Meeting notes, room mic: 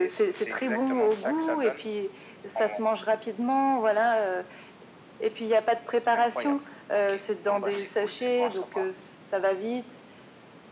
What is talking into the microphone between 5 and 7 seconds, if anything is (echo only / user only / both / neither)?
echo only